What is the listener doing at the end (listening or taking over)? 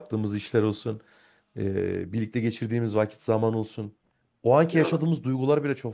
listening